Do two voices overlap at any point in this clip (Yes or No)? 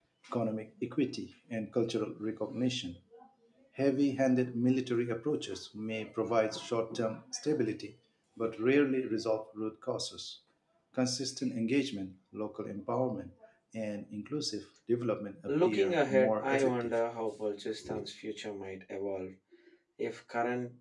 Yes